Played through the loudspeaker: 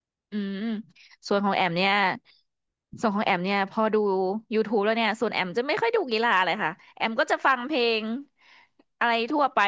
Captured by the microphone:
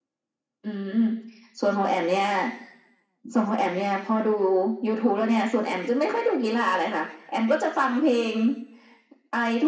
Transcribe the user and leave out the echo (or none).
none